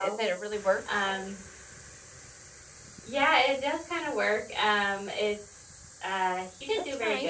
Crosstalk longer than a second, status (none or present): none